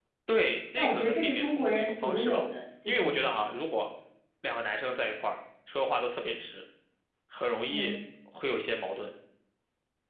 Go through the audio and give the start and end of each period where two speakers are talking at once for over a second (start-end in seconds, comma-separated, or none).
0.8-2.4